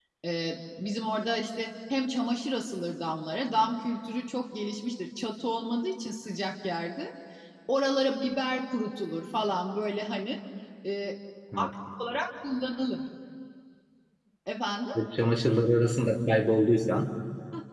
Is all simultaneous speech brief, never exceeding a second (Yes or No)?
Yes